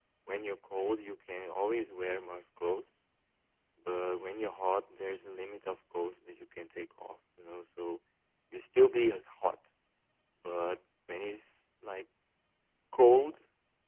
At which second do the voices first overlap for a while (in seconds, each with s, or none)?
none